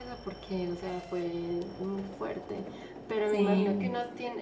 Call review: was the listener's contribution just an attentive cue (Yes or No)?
Yes